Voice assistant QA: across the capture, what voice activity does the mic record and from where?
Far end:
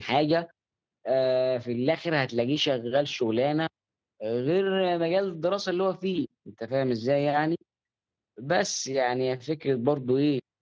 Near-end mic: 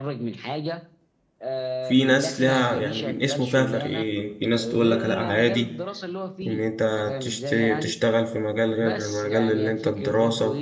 both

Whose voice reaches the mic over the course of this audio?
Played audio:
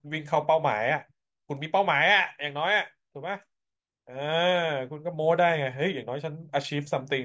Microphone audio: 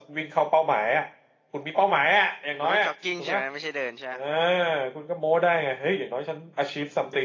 both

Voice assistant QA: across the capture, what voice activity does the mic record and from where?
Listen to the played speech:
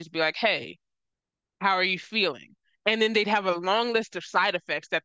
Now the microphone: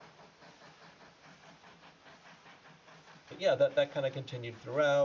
user only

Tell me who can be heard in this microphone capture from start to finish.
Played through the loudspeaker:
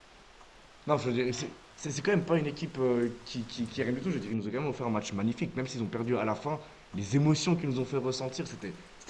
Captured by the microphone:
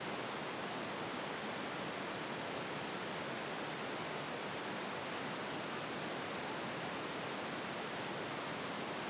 neither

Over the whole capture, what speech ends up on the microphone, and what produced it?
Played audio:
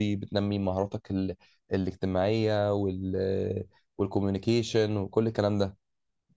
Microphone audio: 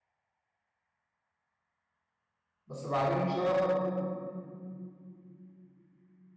user only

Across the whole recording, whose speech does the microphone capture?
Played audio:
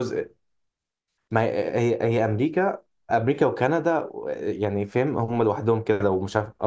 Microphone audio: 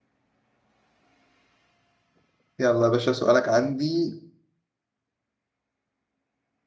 user only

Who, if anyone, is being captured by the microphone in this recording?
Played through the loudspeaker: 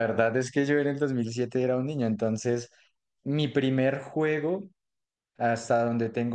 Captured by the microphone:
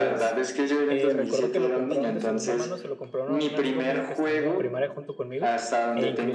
both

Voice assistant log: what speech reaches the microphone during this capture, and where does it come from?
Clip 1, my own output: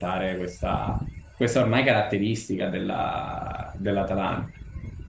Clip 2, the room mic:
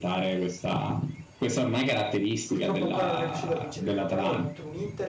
both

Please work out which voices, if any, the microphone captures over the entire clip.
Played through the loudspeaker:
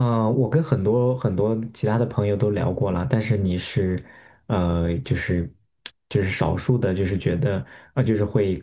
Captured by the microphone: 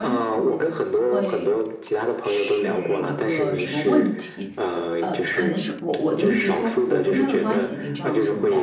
both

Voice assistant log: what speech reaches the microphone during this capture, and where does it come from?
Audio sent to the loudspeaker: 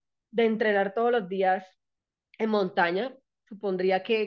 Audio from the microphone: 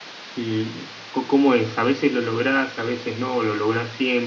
user only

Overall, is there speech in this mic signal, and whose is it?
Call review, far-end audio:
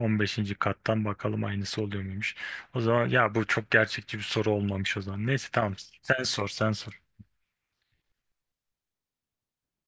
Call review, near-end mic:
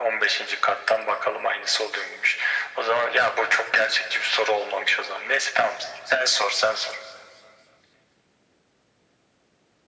echo only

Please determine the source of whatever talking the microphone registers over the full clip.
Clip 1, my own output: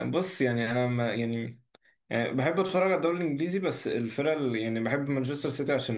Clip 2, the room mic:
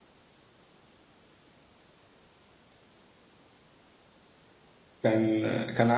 user only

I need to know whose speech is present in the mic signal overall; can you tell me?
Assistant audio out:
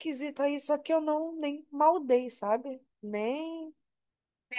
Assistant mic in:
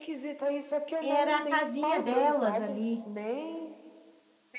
both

